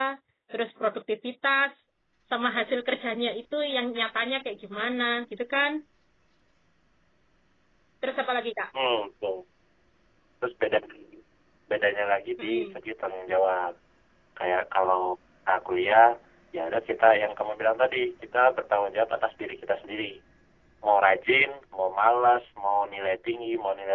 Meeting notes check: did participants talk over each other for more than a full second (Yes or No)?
No